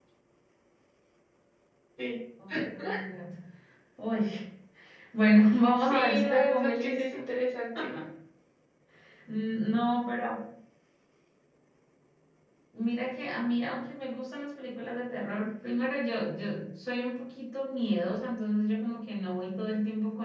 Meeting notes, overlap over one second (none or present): present